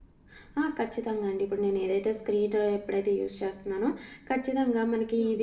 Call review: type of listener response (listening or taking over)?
listening